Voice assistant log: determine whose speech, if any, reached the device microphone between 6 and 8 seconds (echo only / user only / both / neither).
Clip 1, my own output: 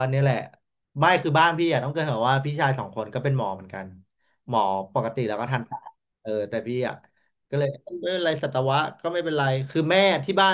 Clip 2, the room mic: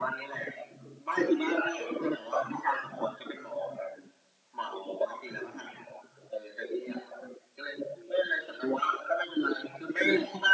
echo only